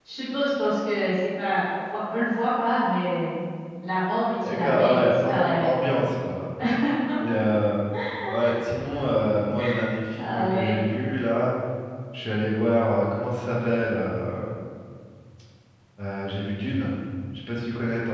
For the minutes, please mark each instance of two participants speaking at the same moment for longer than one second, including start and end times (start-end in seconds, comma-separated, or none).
4.5-5.9